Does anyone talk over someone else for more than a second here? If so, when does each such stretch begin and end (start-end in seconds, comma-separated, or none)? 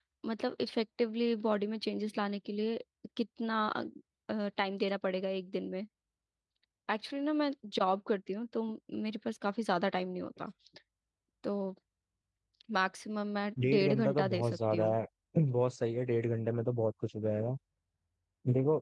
13.6-14.9